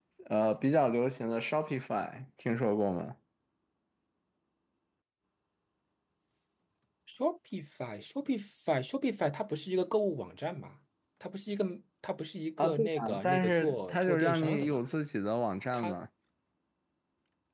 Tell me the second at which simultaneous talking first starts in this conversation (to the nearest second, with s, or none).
13 s